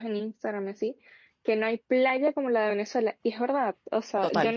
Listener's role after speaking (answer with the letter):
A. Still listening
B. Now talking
A